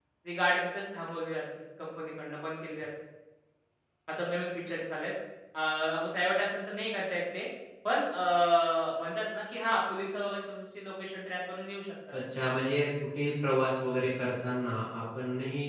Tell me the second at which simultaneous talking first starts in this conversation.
none

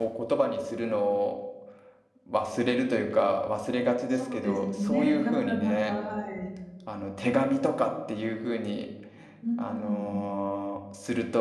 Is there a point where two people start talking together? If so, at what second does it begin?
4.2 s

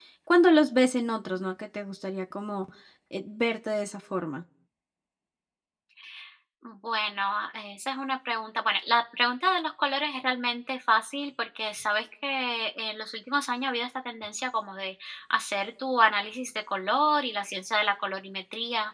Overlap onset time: none

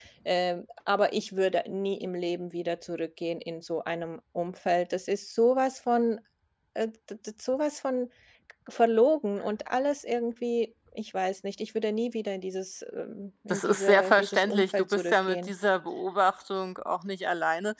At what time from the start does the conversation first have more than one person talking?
13.5 s

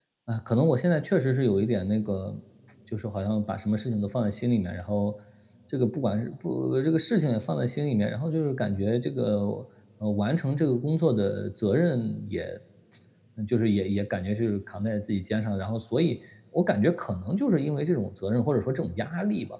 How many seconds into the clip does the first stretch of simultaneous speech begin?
none

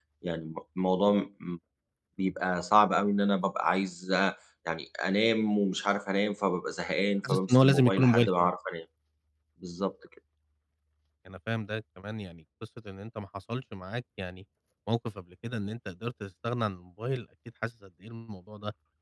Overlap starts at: 7.2 s

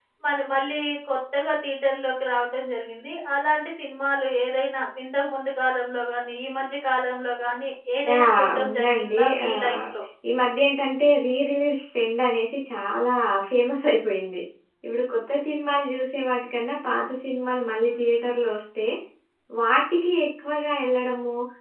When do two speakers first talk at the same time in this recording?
8.1 s

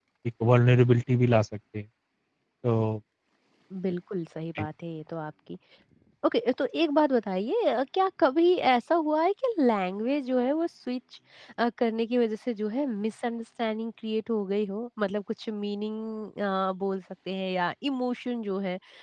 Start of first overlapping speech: none

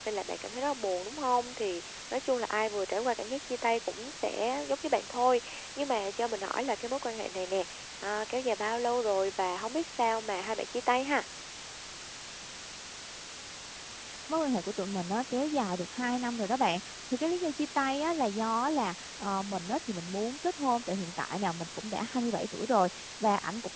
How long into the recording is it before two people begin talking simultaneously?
none

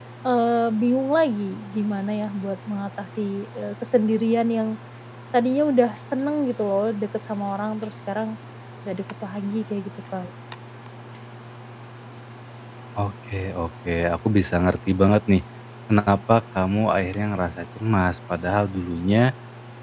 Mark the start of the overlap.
none

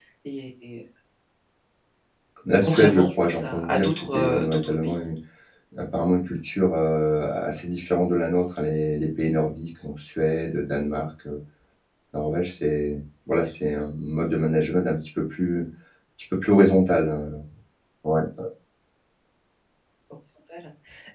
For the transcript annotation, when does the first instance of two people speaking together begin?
2.6 s

